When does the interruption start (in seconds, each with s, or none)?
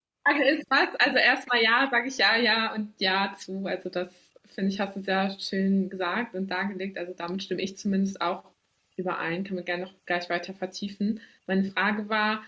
none